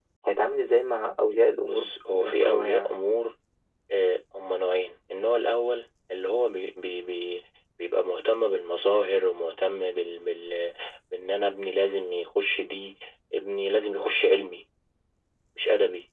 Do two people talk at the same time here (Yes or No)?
Yes